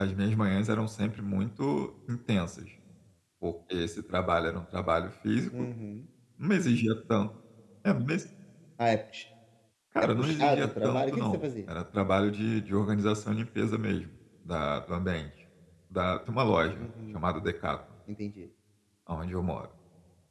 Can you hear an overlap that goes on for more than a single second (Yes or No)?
Yes